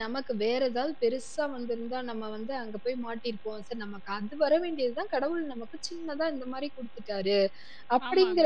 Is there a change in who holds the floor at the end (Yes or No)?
Yes